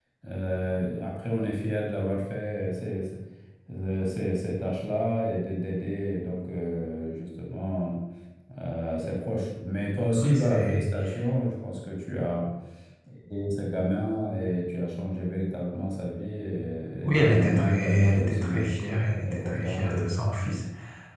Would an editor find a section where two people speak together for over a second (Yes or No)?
Yes